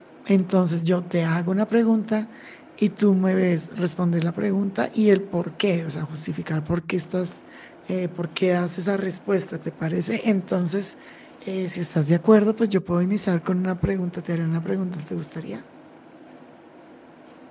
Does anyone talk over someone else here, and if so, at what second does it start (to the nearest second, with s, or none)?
none